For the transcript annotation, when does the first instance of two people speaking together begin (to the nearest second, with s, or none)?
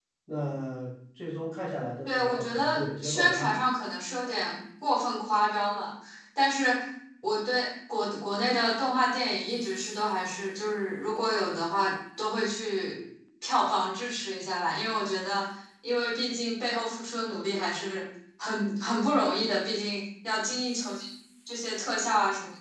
2 s